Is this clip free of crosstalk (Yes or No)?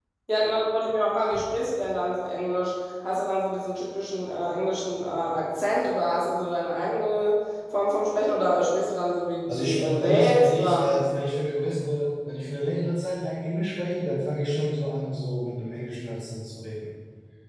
No